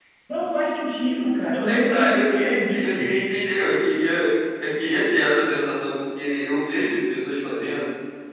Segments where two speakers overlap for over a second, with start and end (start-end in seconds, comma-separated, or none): 1.6-3.0